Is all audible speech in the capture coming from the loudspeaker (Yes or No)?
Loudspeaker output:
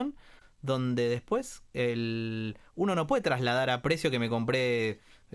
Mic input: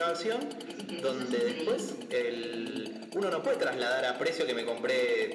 No